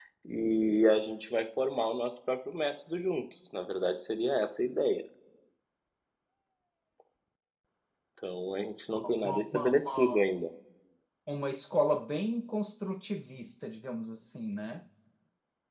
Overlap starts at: 9.0 s

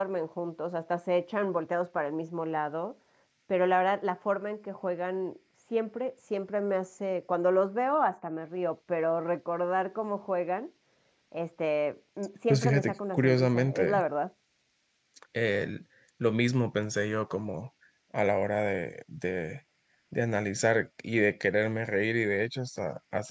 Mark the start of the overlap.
12.5 s

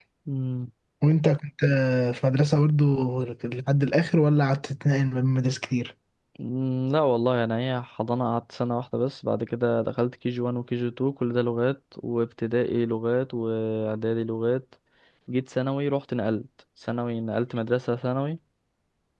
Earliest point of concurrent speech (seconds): none

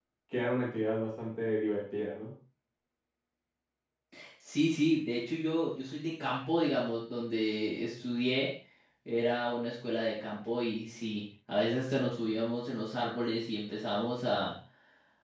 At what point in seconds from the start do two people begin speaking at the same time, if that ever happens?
none

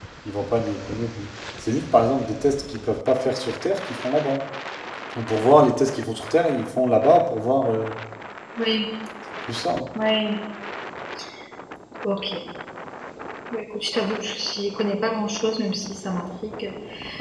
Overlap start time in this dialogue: none

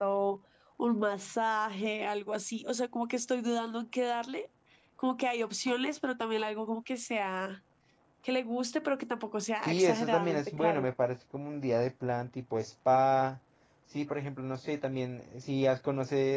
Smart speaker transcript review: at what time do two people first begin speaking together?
9.7 s

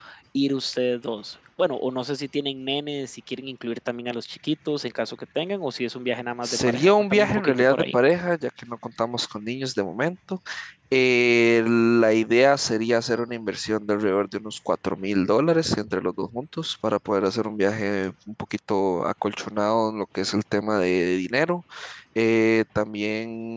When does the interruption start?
6.4 s

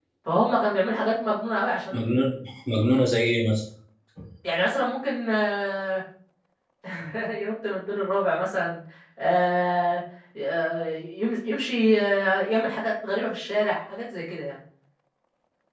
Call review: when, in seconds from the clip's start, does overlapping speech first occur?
none

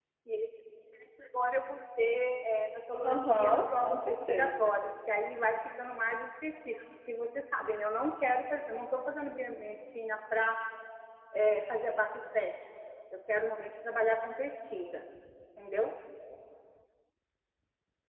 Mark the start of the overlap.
3.0 s

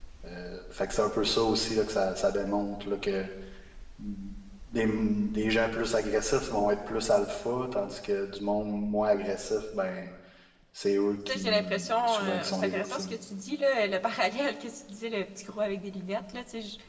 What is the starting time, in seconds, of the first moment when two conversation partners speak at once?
11.3 s

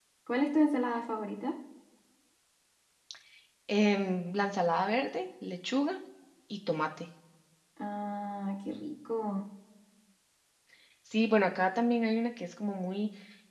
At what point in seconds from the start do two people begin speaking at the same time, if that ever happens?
none

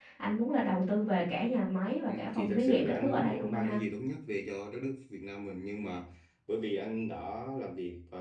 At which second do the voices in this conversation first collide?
2.1 s

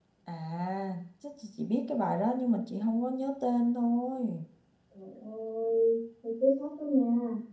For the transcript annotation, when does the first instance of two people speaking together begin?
none

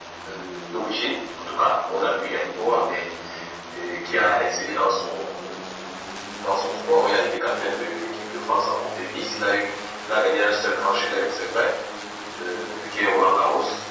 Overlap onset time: none

